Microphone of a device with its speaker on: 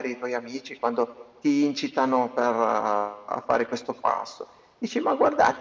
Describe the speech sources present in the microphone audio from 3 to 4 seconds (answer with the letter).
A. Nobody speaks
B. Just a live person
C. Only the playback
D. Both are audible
C